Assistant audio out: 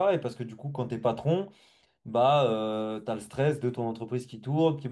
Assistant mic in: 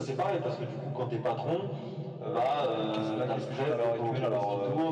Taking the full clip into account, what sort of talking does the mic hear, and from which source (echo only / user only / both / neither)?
both